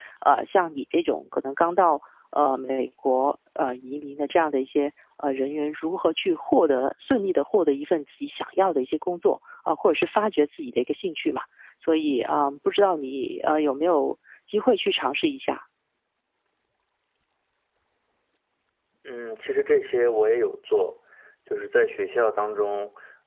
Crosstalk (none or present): none